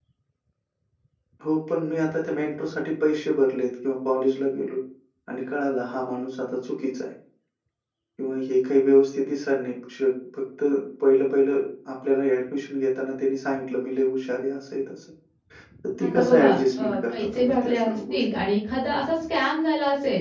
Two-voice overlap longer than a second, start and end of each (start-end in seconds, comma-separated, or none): 16.0-18.4